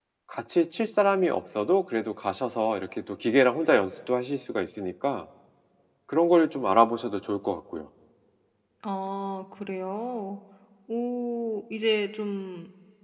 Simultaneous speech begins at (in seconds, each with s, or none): none